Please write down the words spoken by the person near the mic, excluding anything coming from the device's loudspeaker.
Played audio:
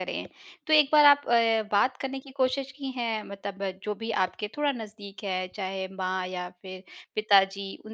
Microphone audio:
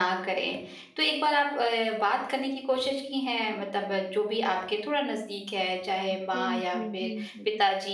ह बिल्कुल, बिल्कुल।

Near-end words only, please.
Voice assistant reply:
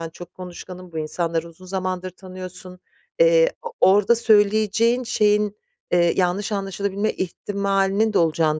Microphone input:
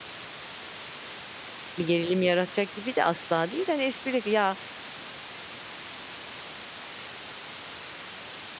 bir gerilim yaratacak gibi de asla değil. Hani, espri "Ya,

